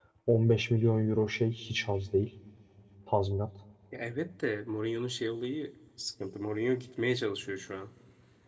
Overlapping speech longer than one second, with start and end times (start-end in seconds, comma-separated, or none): none